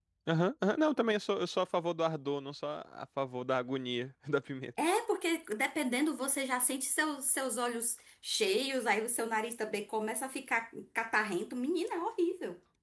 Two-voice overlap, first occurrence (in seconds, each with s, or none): none